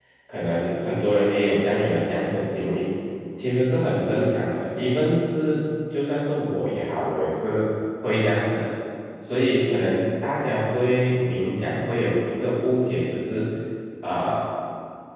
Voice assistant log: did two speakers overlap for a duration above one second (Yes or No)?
No